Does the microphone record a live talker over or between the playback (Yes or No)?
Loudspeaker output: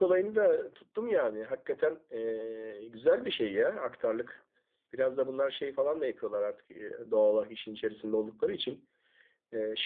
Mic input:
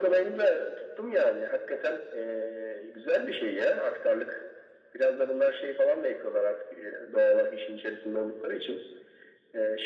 No